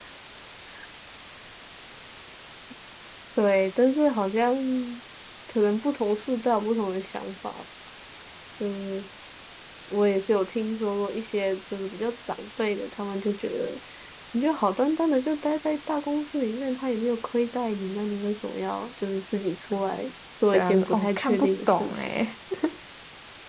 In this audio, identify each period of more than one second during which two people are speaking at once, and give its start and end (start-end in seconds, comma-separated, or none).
20.5-22.1